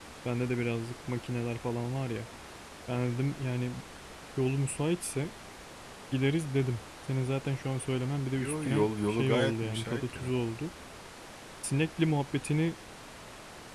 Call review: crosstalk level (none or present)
present